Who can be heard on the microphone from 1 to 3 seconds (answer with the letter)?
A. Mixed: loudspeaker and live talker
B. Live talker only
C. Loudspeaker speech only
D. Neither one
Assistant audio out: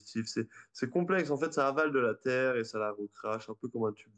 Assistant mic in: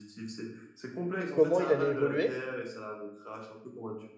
A